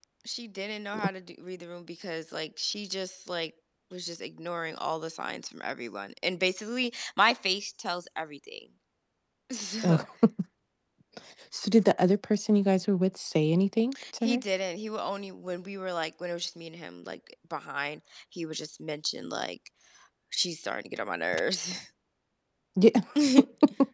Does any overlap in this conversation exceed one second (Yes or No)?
No